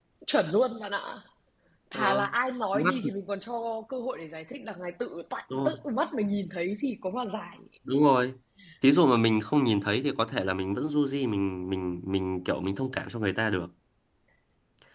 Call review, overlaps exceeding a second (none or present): none